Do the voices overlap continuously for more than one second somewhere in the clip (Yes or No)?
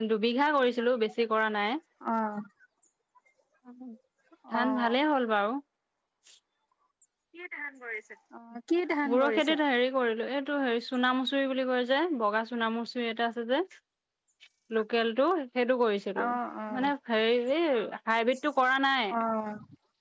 No